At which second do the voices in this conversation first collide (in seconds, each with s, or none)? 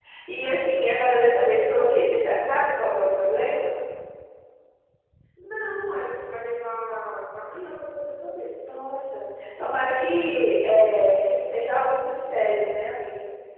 none